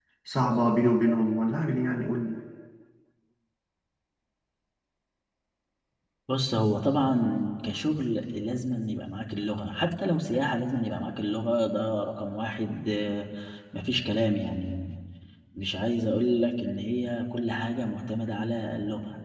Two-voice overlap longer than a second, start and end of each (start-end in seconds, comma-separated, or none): none